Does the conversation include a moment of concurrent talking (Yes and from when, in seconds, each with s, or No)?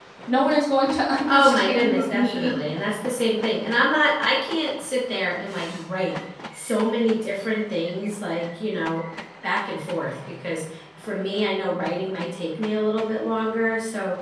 Yes, from 1.3 s